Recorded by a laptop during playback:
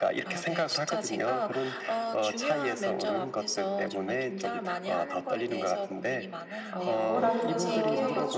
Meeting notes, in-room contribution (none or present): present